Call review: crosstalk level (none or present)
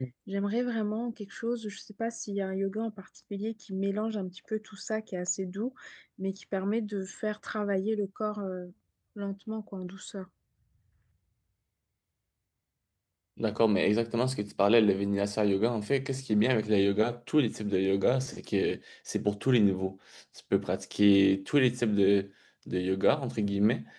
none